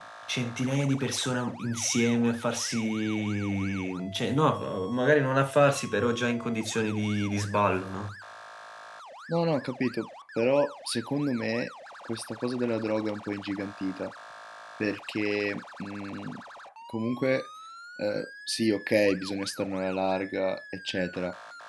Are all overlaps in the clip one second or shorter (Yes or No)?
Yes